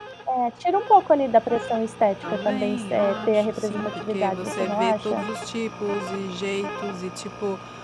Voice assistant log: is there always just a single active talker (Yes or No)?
No